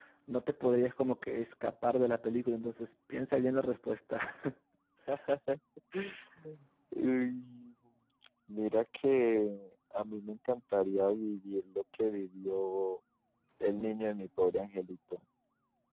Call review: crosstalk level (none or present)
none